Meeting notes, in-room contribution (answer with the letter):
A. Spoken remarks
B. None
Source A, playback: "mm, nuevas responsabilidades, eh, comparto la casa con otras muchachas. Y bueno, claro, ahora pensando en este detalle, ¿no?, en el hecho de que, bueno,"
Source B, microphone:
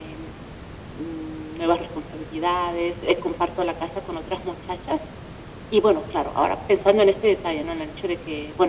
B